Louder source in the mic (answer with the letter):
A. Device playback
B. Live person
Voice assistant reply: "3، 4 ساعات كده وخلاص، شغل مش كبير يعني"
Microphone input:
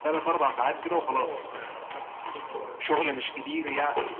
A